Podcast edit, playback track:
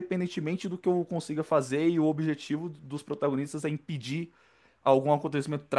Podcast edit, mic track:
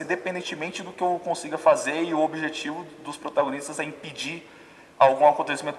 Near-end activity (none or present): none